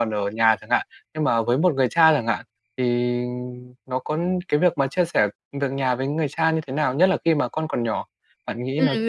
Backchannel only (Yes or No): No